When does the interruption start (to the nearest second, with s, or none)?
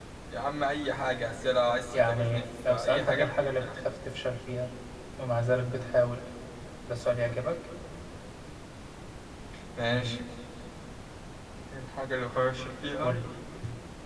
2 s